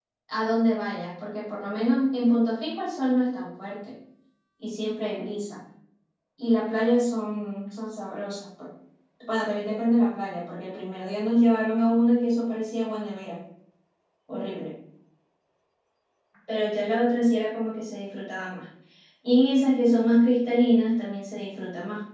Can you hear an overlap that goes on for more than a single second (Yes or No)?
No